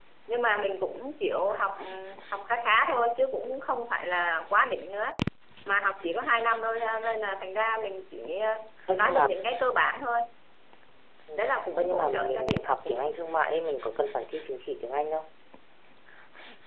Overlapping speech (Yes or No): Yes